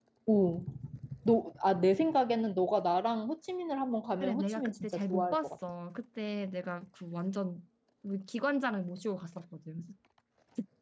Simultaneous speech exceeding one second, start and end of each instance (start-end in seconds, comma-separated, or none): 4.2-5.5